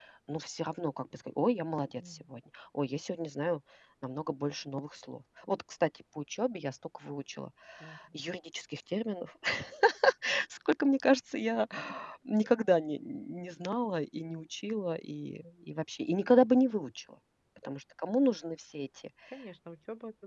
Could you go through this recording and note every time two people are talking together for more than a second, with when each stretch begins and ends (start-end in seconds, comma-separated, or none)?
none